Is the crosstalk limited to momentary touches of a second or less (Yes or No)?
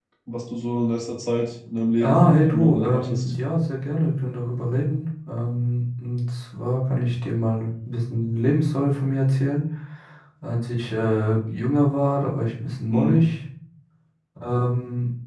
No